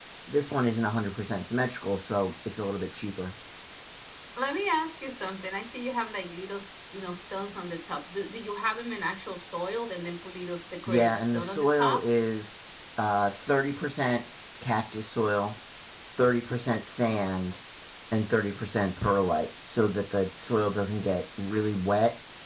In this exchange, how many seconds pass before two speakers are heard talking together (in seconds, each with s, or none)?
10.9 s